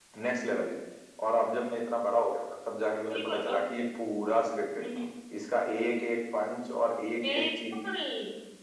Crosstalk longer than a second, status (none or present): none